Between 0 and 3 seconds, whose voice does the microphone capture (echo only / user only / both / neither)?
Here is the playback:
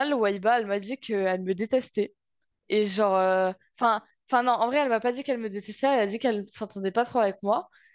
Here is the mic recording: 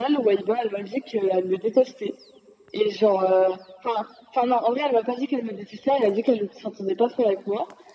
echo only